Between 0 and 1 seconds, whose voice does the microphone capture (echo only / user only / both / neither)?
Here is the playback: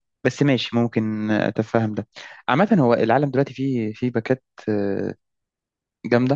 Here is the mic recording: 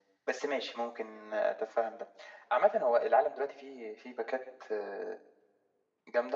echo only